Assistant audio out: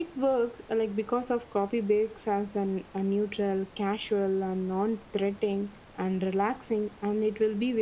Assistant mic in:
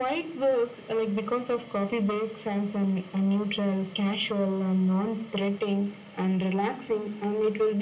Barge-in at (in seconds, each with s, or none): none